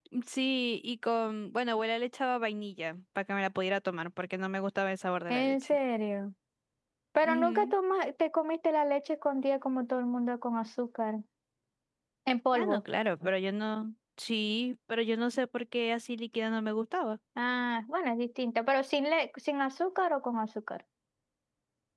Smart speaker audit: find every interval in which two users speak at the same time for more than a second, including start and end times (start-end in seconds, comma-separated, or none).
none